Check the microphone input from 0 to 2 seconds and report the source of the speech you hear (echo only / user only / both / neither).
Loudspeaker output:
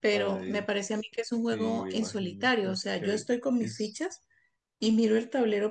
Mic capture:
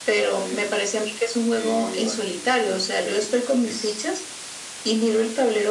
echo only